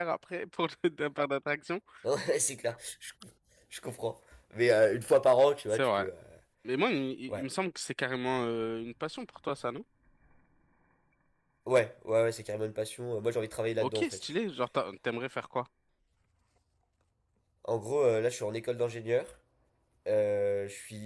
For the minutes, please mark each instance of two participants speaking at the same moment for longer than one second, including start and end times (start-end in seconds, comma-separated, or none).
none